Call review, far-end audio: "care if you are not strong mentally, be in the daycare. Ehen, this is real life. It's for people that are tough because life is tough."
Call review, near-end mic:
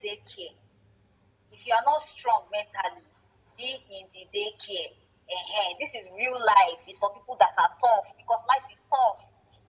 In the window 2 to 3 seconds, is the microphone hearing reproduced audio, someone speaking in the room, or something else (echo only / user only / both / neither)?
echo only